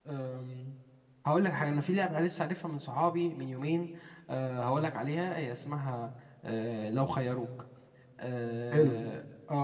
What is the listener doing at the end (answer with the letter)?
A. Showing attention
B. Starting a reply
A